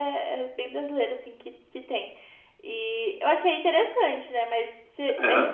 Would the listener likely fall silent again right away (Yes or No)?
Yes